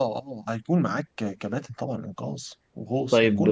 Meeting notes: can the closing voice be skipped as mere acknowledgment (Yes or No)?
No